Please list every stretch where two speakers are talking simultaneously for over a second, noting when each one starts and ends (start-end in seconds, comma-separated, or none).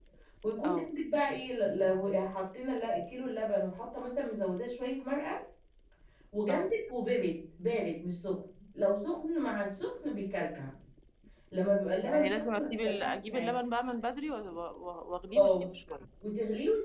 12.0-13.5